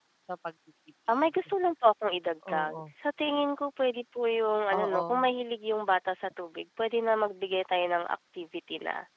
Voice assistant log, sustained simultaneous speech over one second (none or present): none